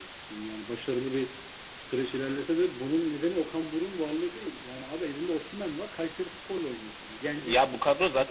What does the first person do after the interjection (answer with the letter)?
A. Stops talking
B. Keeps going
A